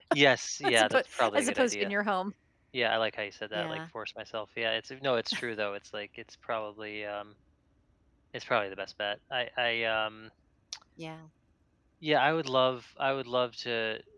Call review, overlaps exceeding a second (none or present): present